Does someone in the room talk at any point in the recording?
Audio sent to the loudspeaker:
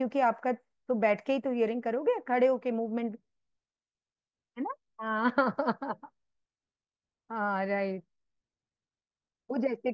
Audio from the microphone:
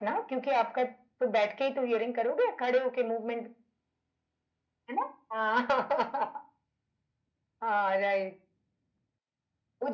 No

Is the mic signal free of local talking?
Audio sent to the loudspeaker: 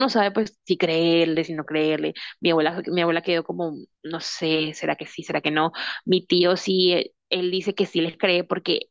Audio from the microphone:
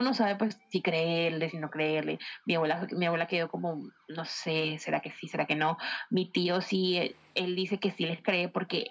Yes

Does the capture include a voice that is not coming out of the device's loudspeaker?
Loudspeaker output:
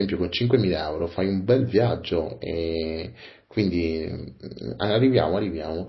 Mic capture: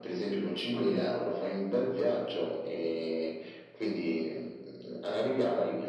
No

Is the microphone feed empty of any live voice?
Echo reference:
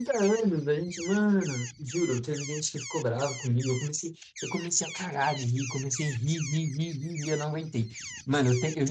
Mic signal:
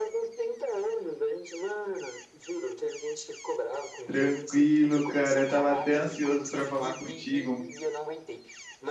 No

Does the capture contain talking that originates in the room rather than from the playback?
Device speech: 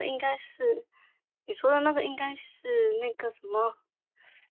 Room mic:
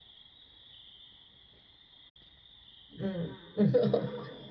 Yes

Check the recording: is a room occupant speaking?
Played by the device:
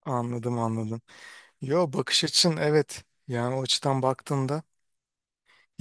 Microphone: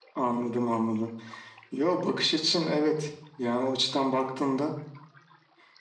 No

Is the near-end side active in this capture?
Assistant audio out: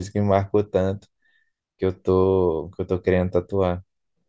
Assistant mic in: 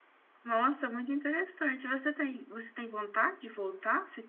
Yes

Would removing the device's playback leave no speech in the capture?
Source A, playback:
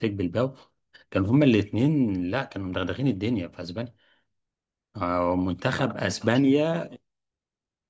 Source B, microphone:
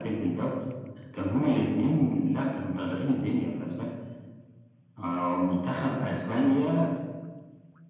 Yes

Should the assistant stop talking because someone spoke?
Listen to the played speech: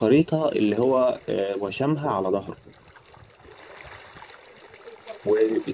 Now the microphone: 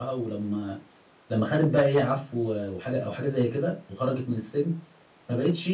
Yes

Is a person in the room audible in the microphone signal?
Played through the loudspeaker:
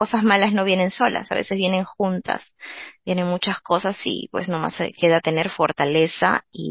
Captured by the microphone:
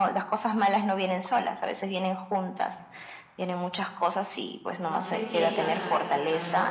Yes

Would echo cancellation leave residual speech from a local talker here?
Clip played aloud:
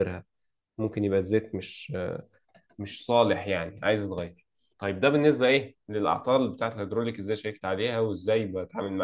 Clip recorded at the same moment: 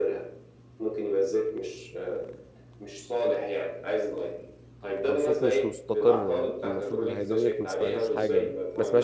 Yes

